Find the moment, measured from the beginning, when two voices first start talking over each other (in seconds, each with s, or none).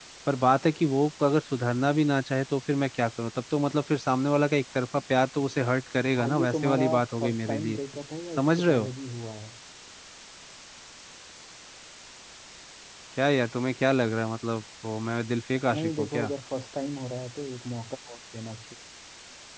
6.2 s